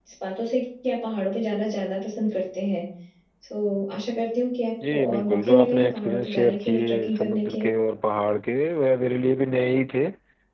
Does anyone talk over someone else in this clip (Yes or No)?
Yes